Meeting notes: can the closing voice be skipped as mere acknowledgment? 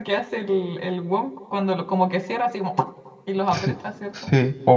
No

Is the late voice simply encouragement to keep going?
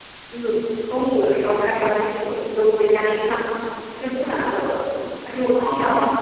Yes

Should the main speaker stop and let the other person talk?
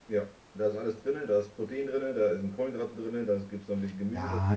Yes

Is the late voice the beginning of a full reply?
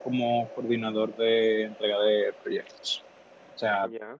No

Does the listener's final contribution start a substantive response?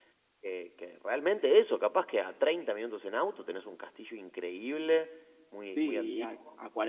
Yes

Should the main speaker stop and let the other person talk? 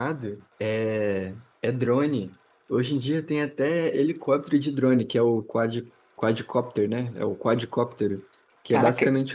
No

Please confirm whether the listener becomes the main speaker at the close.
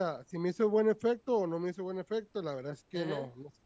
No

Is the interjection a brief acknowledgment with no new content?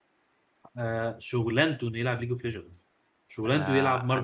No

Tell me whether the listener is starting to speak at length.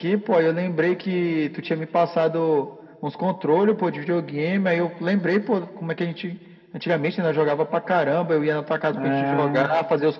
No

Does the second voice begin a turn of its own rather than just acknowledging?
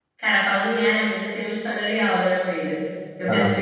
No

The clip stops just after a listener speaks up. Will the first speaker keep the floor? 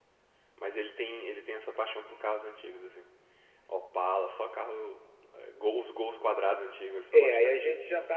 No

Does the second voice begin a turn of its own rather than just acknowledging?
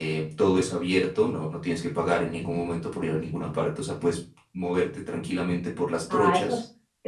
Yes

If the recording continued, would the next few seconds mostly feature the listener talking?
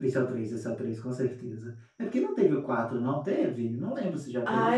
Yes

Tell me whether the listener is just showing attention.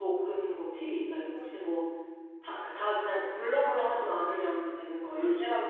No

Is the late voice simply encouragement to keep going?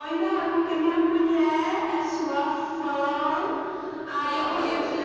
Yes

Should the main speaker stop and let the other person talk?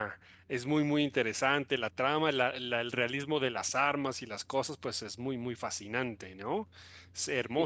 Yes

